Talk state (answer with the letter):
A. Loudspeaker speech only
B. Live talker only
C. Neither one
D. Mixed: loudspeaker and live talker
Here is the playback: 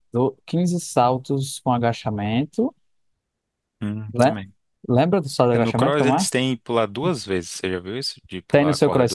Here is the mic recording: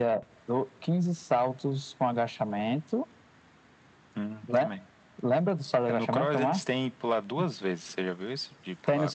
A